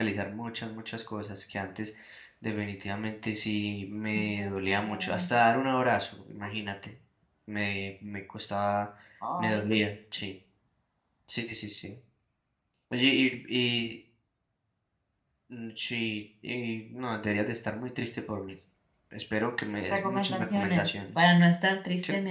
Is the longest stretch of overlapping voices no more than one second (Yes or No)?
No